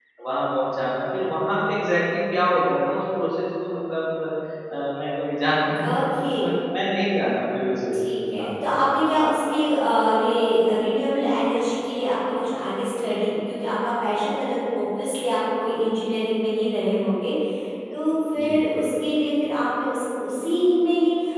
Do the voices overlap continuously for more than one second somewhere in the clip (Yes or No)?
No